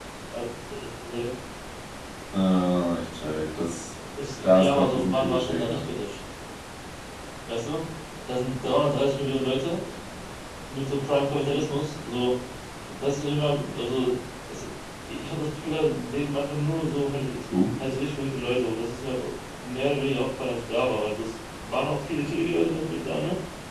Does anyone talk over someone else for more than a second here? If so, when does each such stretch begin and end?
4.4-5.8

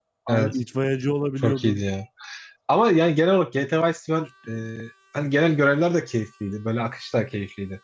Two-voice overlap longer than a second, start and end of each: none

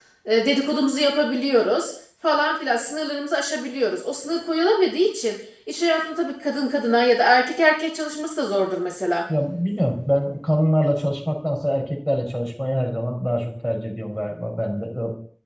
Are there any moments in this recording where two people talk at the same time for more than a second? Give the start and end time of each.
none

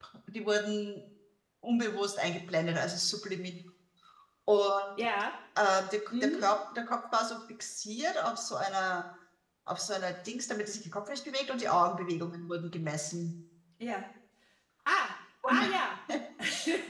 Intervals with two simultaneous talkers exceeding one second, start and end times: none

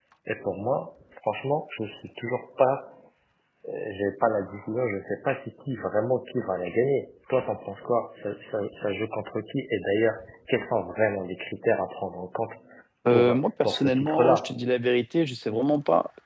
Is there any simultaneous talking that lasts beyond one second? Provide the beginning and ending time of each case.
13.1-14.5

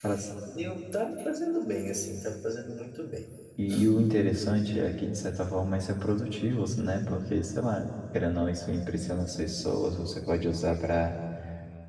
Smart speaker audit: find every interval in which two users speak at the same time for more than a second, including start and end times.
none

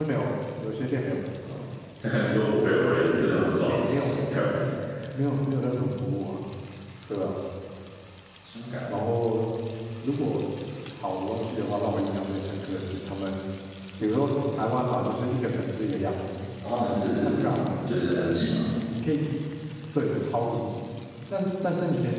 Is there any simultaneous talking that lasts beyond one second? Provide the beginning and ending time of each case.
2.4-3.7

